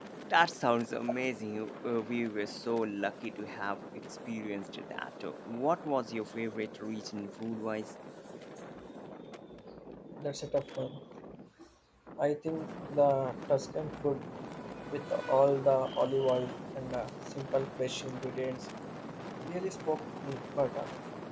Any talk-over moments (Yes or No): No